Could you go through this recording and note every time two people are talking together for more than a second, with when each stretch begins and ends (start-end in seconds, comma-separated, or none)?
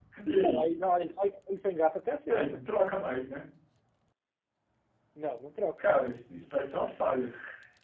none